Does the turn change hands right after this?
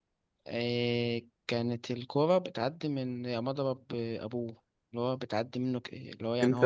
Yes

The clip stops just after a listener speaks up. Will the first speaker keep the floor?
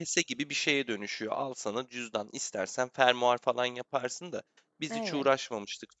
Yes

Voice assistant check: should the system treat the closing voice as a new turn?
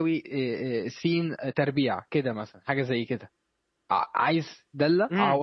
Yes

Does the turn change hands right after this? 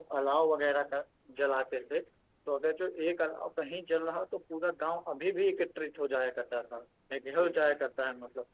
No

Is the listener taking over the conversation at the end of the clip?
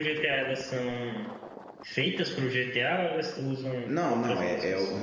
Yes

